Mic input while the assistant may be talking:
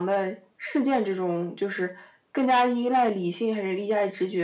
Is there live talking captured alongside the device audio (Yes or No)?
No